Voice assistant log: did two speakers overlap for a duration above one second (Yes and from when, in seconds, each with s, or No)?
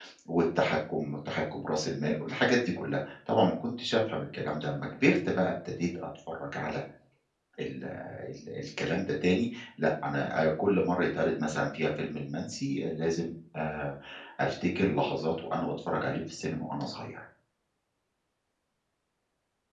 No